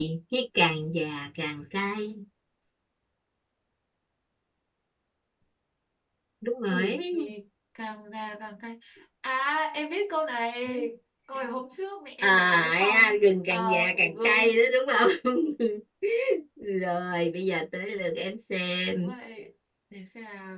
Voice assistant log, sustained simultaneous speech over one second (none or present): present